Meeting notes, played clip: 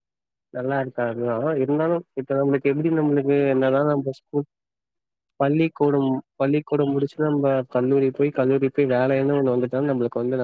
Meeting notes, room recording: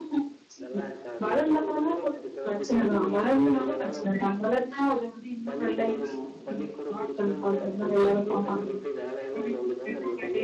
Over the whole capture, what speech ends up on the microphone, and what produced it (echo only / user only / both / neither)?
both